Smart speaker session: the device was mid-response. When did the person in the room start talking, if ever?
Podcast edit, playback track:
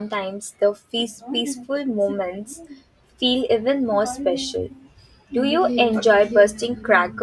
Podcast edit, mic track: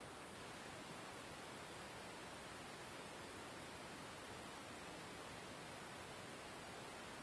none

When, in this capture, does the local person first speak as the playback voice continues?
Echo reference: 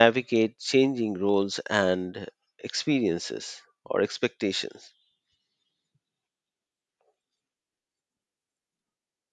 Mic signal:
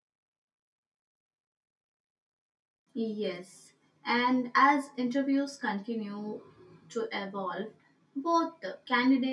2.9 s

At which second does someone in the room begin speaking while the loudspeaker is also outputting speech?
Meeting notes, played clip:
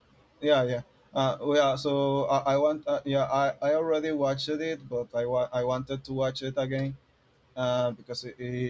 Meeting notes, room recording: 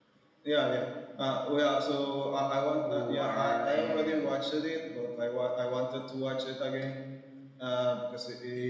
2.8 s

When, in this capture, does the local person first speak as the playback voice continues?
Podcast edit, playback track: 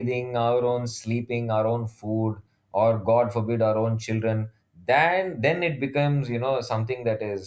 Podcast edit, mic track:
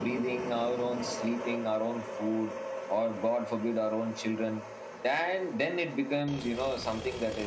none

